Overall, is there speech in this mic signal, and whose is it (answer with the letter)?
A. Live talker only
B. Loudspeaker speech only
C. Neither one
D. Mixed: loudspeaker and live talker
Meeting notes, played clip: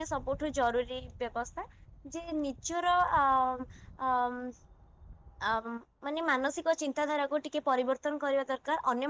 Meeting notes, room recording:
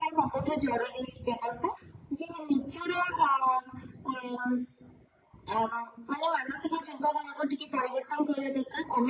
B